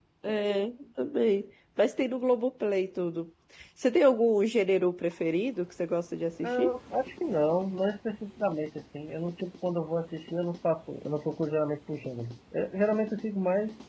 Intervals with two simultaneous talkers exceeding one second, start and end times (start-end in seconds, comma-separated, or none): none